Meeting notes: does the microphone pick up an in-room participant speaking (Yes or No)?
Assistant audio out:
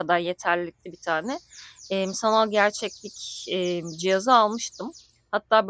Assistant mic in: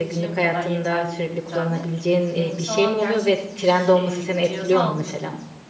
Yes